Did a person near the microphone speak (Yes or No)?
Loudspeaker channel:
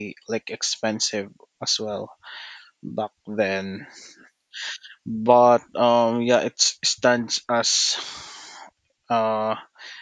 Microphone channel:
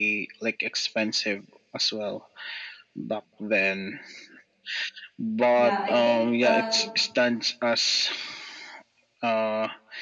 Yes